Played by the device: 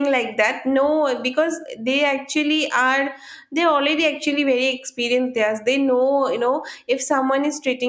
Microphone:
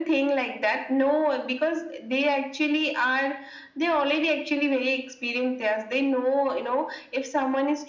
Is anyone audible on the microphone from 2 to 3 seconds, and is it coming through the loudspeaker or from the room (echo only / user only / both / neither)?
echo only